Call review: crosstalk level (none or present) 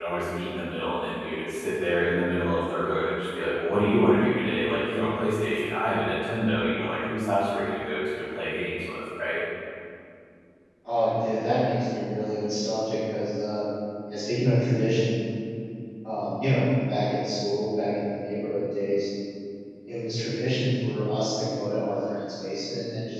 none